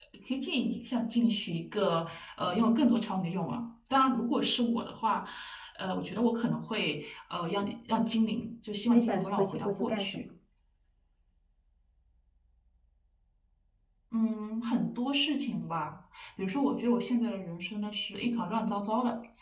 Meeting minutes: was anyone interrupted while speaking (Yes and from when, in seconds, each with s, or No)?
Yes, from 8.9 s